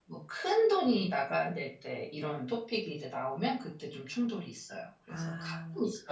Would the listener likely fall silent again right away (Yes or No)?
No